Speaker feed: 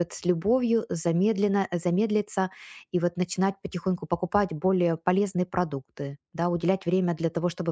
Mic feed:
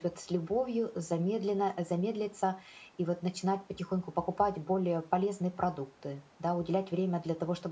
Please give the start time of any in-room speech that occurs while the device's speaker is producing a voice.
none

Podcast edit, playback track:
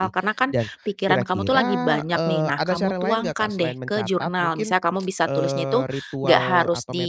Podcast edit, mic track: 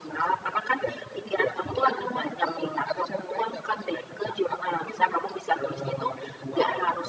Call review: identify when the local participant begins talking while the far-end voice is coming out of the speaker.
none

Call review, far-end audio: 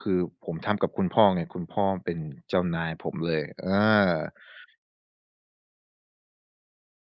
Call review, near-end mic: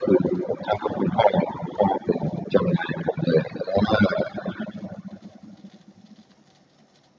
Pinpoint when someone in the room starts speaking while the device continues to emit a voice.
none

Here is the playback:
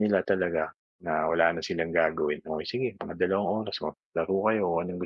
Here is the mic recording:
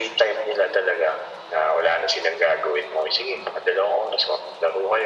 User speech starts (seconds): none

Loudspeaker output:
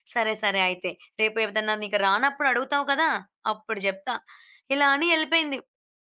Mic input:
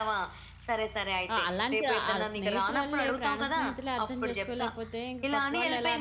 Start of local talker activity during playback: 1 s

